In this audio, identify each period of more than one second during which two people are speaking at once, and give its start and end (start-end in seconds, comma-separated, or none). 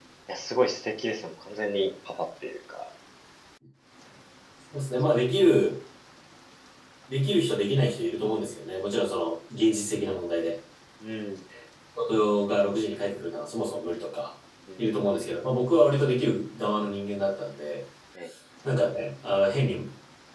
none